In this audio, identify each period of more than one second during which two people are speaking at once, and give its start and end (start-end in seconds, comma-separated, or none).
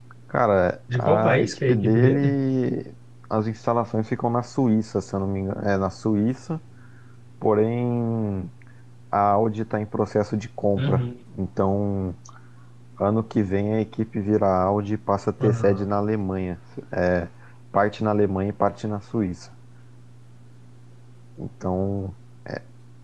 0.9-2.3